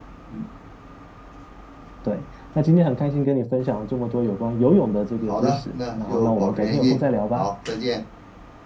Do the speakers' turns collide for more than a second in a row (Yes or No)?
Yes